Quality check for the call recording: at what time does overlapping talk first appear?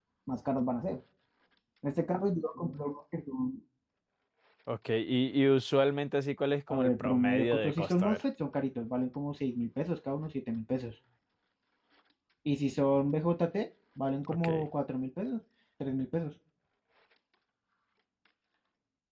6.7 s

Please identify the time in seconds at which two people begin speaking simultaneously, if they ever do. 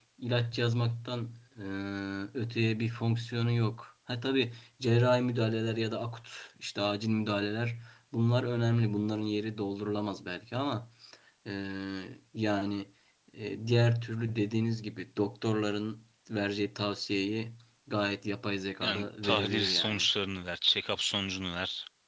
18.8 s

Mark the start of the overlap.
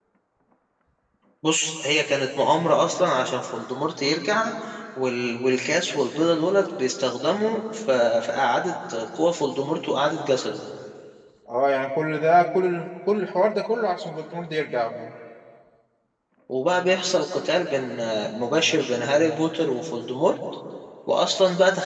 none

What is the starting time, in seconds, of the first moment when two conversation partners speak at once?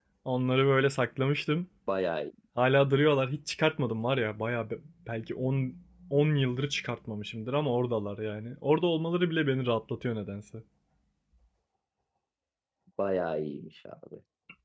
none

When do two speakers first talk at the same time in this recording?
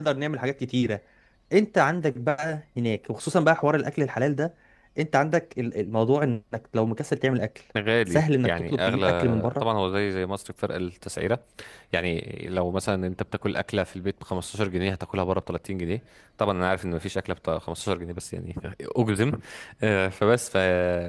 8.1 s

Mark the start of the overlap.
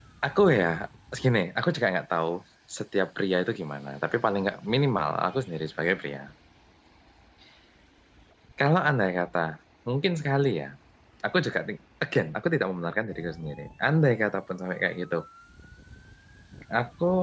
none

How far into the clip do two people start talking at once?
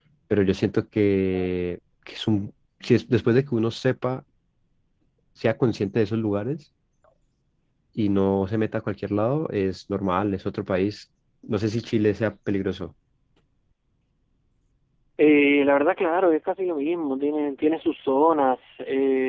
none

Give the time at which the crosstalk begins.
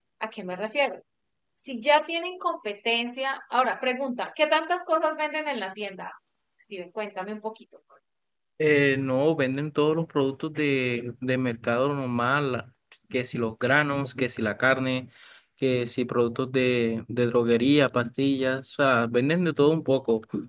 none

